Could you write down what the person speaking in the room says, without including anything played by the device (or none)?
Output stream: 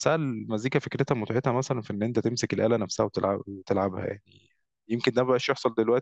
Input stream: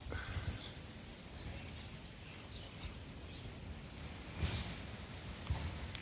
none